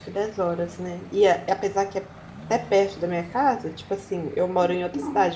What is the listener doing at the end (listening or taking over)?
listening